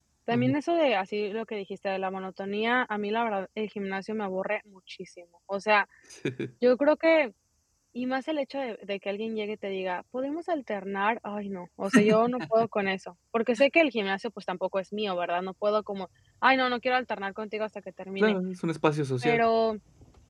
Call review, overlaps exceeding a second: none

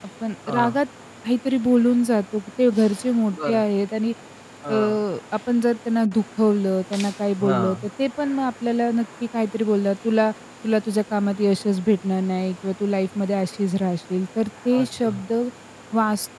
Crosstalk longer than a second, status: none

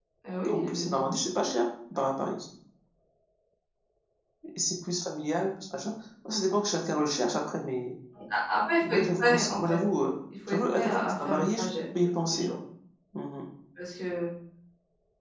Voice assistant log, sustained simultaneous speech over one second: present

